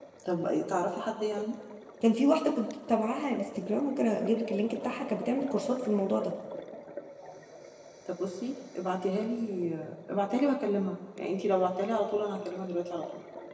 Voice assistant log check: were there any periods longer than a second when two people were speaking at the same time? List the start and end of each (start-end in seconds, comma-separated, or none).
none